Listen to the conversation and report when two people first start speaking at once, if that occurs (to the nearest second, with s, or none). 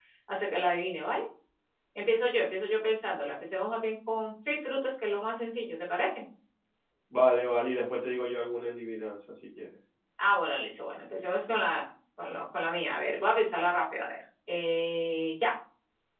none